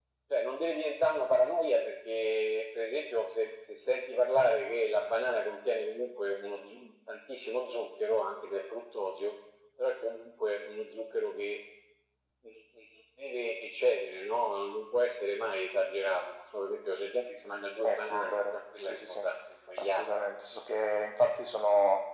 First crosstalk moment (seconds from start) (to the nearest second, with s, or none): 18 s